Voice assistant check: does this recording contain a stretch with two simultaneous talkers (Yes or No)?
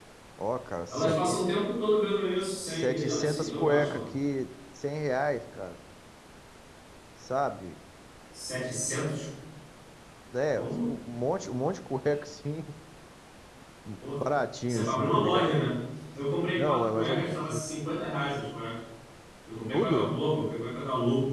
Yes